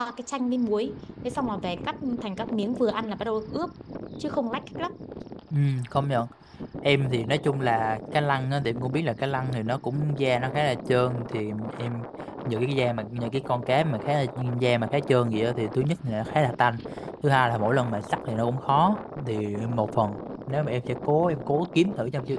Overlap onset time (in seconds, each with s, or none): none